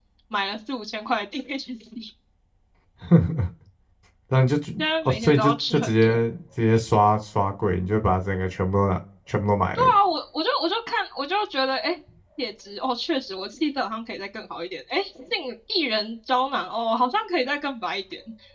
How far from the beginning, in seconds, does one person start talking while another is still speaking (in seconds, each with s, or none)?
4.8 s